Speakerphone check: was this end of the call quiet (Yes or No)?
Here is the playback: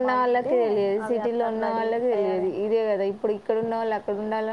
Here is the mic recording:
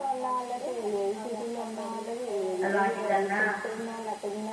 No